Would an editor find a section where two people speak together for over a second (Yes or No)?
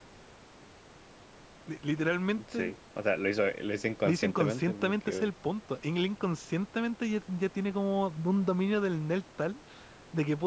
Yes